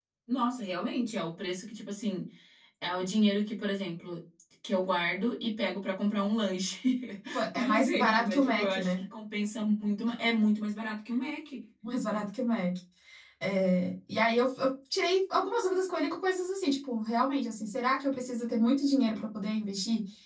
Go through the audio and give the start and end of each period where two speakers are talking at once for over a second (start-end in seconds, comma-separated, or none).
7.5-9.0